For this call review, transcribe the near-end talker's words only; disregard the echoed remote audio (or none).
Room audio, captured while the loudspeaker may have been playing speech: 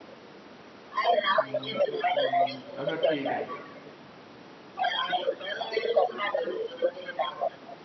हम्म हम्म, हम्म, अच्छा ठीक है